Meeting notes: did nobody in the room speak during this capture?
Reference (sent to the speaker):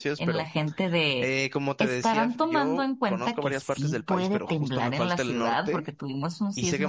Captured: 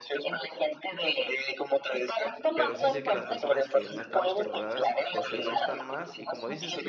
No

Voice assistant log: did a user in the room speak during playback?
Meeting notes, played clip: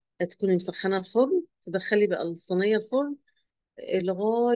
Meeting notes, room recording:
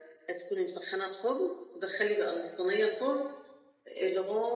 No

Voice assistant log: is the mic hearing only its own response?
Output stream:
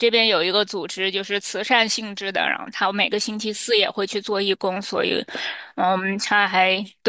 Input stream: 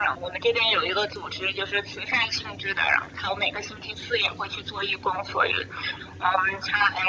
Yes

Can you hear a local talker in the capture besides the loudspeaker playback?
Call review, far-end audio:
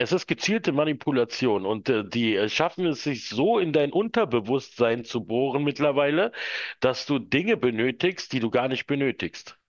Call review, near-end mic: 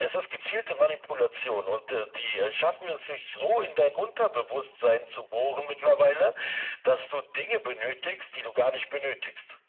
No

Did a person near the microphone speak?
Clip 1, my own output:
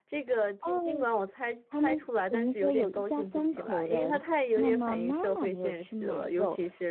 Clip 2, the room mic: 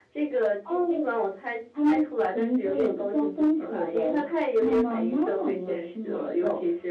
No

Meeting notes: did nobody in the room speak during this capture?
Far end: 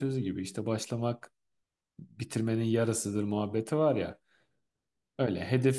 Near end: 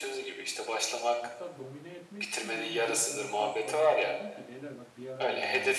No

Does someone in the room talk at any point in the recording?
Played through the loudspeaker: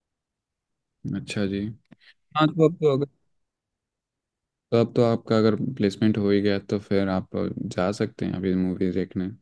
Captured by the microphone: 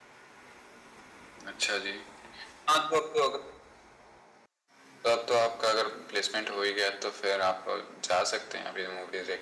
No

